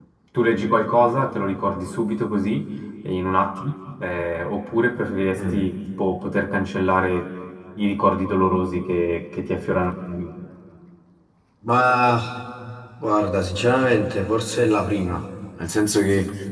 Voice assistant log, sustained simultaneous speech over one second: none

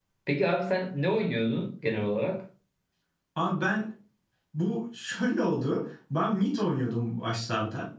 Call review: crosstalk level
none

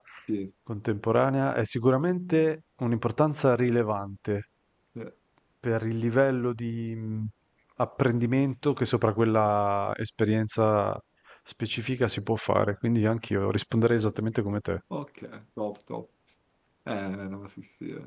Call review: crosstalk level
none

